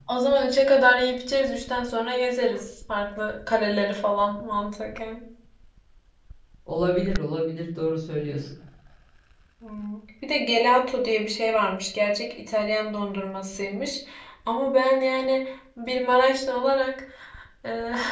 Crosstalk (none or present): none